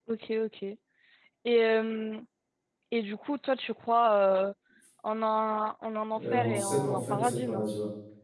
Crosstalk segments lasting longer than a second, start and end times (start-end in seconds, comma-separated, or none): 6.2-7.7